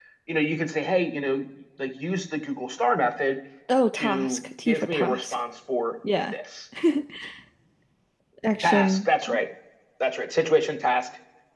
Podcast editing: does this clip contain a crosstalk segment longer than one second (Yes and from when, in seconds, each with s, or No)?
Yes, from 4.0 s